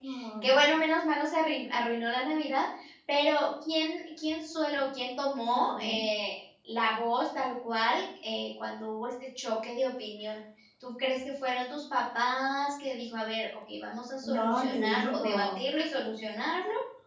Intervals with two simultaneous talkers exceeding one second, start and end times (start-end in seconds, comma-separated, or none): 14.2-15.6